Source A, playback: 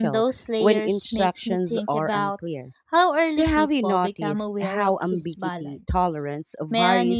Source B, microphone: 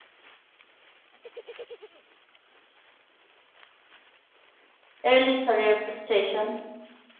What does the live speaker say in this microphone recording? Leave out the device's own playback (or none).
early career frustration?